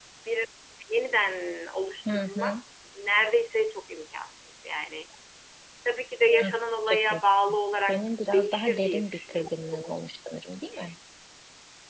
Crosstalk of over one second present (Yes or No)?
Yes